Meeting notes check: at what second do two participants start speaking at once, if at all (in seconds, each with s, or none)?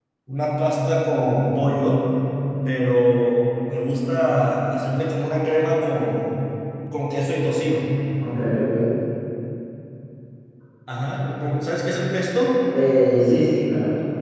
none